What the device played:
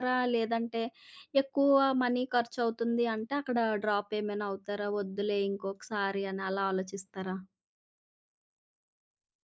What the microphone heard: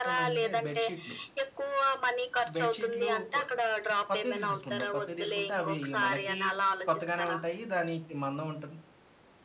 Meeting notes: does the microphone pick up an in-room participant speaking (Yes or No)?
Yes